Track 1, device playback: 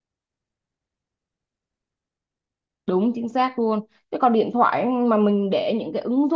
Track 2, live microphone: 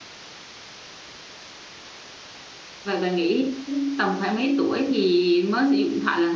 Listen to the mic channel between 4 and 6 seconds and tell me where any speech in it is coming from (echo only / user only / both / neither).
user only